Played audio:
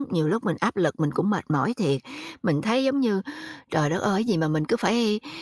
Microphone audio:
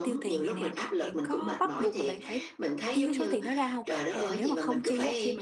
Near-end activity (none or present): present